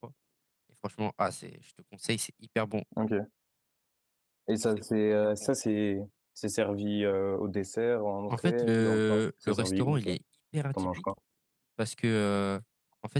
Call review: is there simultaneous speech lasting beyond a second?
Yes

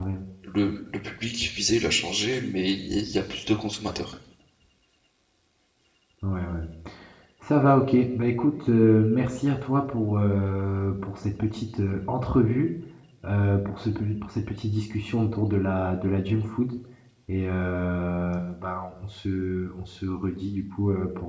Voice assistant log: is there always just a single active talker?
Yes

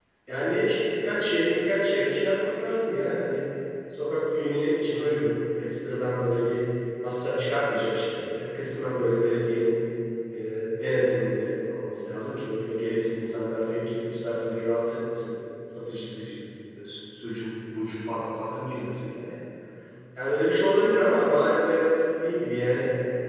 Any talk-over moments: No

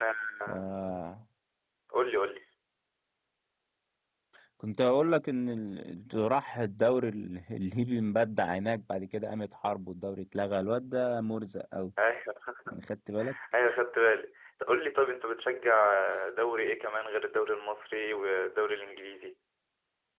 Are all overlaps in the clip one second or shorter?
Yes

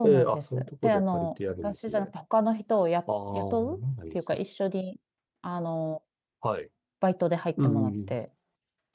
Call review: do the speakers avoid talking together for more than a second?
No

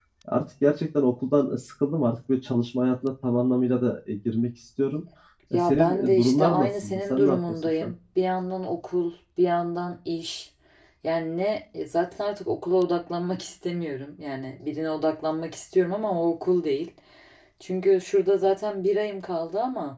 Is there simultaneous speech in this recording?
Yes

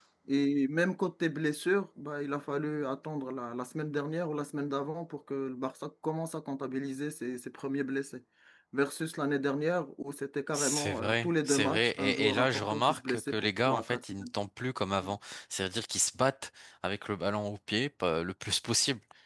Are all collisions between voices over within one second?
No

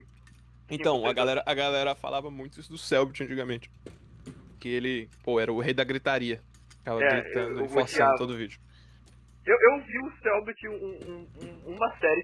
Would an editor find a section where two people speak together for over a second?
Yes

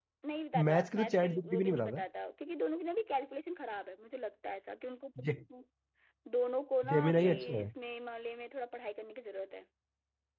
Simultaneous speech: Yes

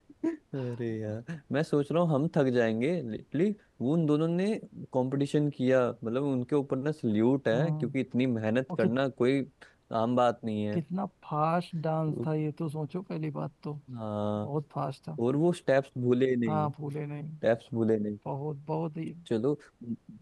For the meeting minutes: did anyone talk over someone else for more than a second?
No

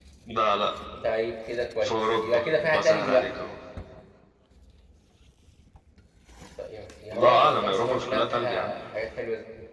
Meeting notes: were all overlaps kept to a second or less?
No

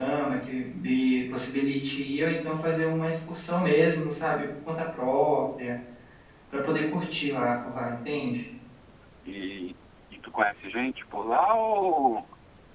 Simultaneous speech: No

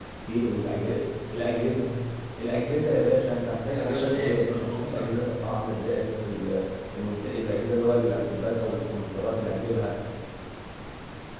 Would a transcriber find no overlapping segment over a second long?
No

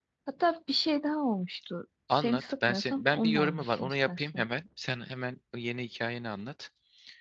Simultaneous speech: Yes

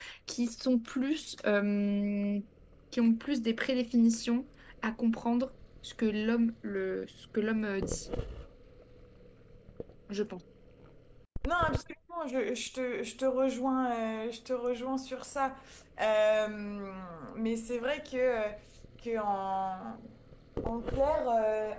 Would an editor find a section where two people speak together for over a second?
No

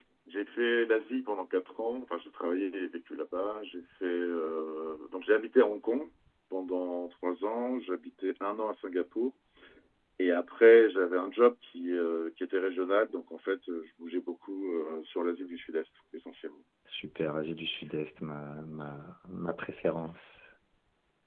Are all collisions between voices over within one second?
Yes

